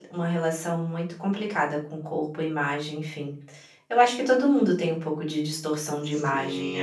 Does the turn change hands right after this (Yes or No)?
Yes